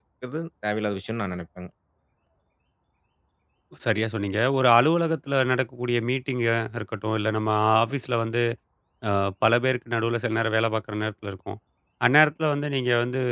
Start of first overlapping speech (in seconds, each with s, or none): none